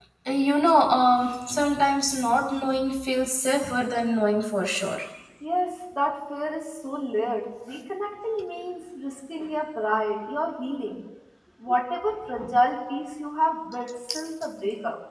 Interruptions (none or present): none